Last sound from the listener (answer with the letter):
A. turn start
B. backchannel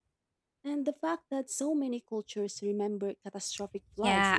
A